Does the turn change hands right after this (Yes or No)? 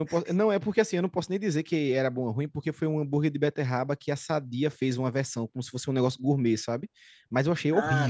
Yes